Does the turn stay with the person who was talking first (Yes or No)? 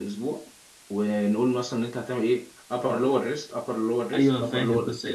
No